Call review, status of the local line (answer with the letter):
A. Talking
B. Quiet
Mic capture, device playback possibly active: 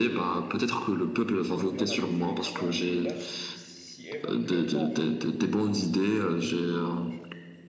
A